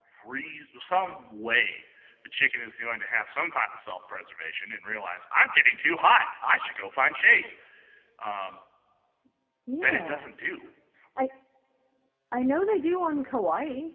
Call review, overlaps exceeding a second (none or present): none